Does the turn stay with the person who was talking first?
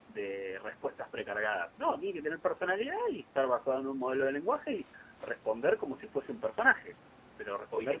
Yes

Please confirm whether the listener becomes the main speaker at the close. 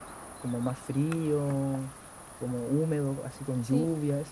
No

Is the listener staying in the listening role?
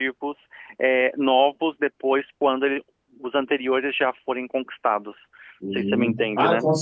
No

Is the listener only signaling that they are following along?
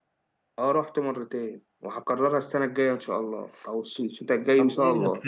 No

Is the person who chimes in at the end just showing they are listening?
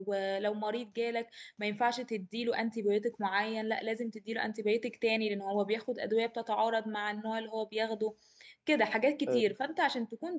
Yes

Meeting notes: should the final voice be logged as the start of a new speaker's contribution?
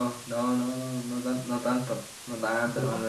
No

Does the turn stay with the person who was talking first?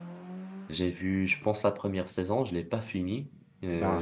Yes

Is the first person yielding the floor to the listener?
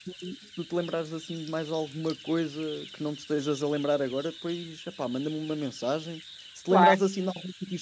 No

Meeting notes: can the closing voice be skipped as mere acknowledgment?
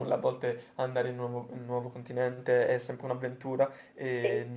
Yes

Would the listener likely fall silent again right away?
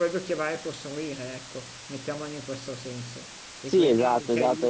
No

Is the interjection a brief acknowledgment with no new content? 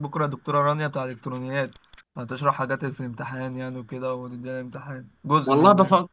No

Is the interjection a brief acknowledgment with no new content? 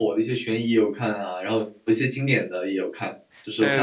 No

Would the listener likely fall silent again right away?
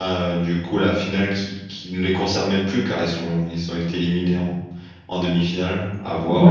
No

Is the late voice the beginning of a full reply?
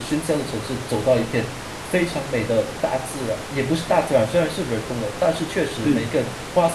No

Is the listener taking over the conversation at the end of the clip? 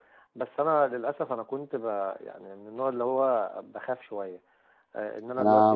Yes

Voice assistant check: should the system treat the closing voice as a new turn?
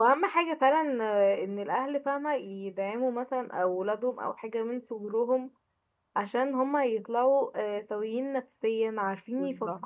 No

